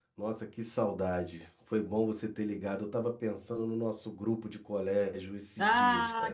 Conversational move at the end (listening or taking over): taking over